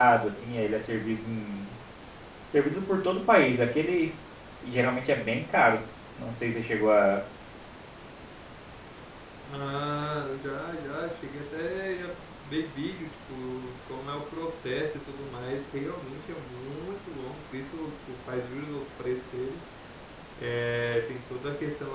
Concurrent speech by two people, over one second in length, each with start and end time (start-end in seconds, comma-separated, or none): none